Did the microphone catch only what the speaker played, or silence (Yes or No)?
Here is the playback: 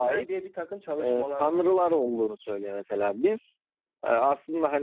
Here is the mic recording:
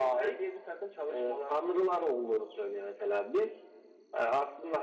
Yes